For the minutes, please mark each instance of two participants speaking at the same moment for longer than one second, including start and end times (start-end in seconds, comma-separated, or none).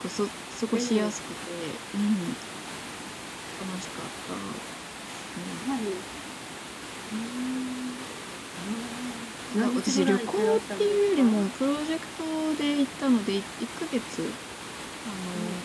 9.5-11.4